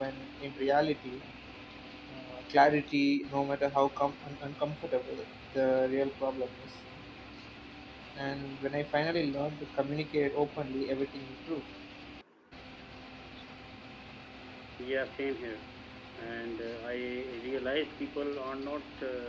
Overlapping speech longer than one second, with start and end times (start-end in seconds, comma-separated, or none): none